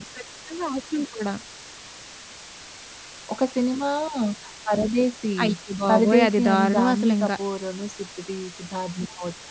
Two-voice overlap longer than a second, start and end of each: 5.9-7.3

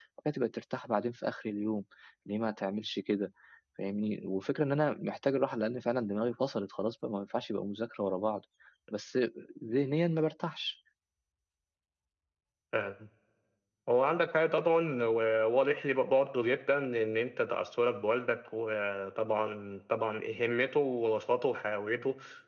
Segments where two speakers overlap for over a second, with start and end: none

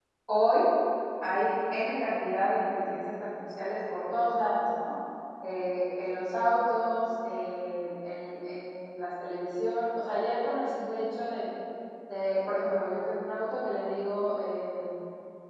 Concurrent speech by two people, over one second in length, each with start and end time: none

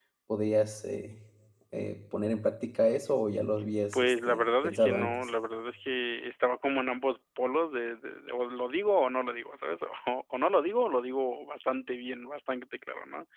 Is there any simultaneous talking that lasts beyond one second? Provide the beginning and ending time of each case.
3.9-5.2

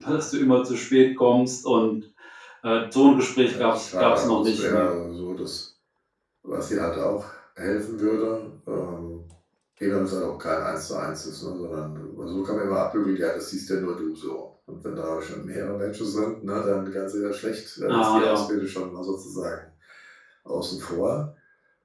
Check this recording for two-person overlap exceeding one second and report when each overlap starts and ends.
3.5-4.9

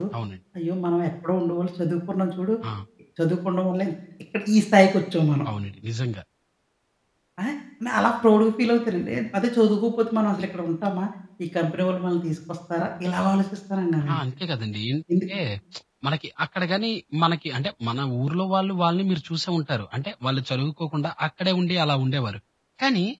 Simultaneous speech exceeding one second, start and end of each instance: none

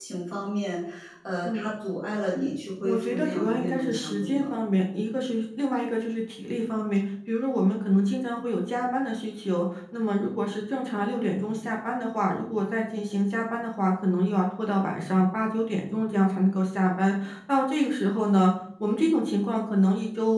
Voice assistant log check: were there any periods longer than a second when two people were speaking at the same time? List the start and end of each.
2.8-4.6

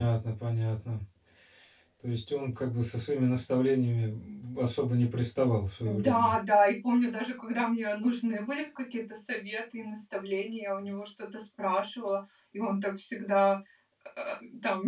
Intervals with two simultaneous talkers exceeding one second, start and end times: none

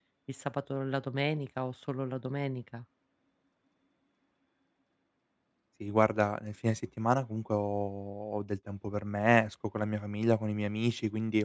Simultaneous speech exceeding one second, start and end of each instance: none

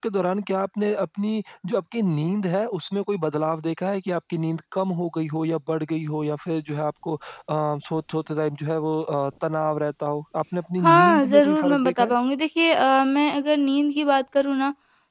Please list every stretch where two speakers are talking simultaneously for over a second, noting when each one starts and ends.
10.8-12.2

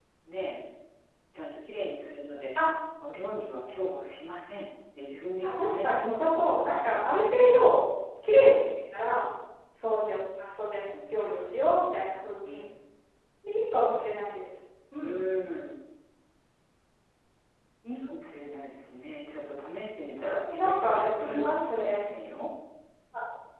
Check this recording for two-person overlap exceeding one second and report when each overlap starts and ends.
5.4-7.6, 20.5-22.1

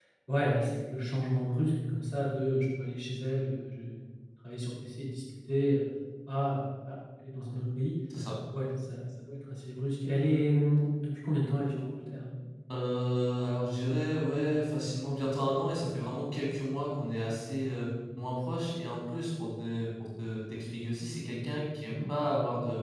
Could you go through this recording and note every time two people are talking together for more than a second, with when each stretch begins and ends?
none

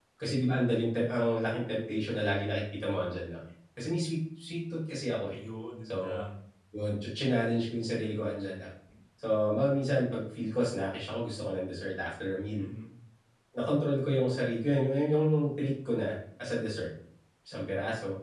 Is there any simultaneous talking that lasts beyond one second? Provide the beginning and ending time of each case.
none

